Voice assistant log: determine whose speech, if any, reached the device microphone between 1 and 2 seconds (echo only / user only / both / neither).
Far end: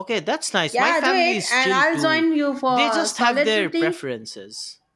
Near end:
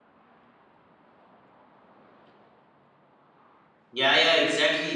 neither